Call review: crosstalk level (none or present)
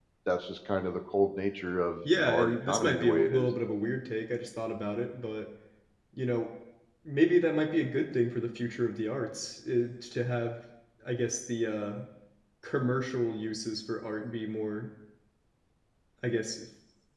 present